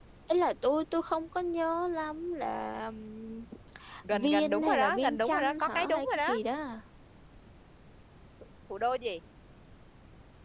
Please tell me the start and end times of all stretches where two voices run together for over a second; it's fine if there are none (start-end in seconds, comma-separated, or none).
4.1-6.3